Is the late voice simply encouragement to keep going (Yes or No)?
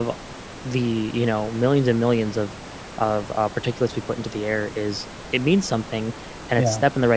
Yes